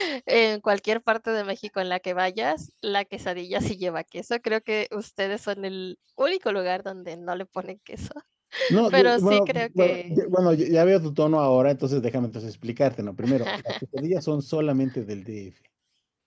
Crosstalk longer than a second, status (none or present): present